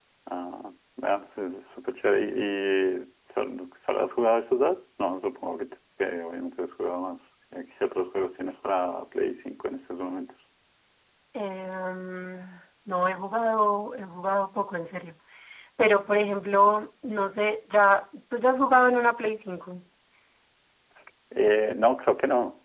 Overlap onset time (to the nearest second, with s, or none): none